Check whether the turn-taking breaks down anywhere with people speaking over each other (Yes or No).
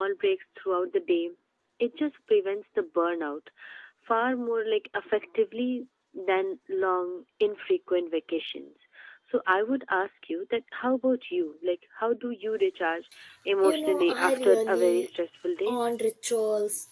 Yes